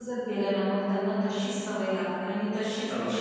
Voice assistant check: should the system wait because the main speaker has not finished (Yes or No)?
Yes